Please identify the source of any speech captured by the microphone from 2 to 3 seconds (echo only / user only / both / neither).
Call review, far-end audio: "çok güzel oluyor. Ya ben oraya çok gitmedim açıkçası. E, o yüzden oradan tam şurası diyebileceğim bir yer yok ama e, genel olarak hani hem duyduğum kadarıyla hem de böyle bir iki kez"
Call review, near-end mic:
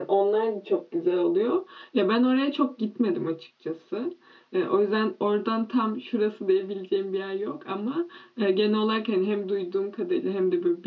echo only